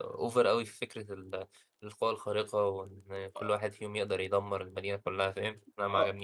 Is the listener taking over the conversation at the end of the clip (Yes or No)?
Yes